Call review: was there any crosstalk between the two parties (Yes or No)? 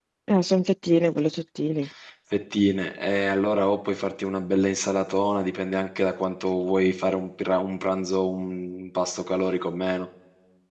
No